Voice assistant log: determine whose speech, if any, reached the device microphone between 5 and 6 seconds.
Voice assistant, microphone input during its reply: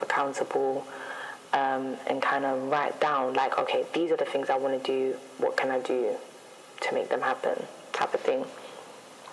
echo only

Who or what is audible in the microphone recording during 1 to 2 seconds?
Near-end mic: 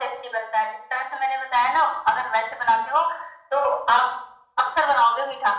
echo only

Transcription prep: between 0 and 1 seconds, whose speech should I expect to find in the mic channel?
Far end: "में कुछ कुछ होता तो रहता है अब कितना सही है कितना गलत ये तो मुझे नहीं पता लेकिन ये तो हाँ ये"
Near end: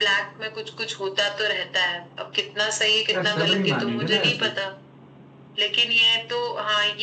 echo only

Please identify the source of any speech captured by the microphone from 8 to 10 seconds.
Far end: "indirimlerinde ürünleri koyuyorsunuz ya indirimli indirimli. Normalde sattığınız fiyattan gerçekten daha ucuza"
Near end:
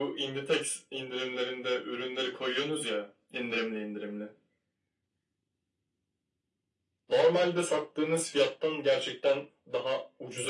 echo only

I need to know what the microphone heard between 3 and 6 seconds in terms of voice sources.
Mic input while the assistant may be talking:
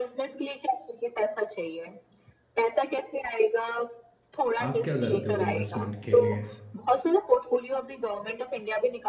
both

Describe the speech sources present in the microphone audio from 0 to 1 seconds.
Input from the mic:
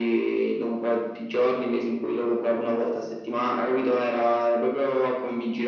echo only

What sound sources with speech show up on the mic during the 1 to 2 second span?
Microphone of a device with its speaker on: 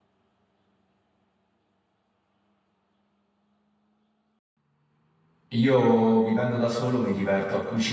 neither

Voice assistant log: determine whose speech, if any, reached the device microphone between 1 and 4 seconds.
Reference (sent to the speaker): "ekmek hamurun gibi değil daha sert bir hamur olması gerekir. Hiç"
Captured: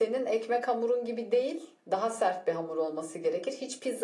echo only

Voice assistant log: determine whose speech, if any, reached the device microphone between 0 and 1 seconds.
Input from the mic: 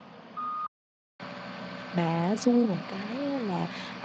neither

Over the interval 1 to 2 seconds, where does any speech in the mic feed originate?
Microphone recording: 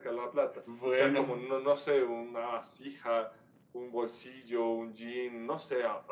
both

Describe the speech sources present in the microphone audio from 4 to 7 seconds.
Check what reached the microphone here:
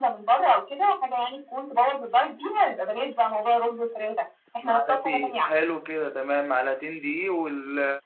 both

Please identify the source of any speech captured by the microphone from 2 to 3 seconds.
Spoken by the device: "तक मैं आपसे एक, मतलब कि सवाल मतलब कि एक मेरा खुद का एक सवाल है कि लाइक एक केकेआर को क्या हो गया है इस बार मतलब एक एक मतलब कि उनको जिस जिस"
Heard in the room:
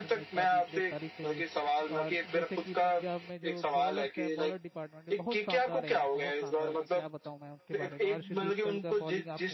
both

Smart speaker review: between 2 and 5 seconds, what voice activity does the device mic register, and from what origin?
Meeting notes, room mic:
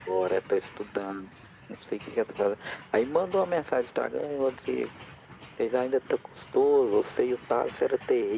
echo only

